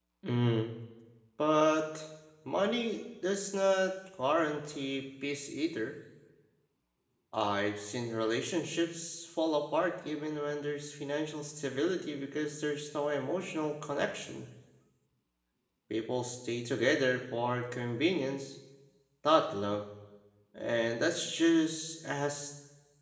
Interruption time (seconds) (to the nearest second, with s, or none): none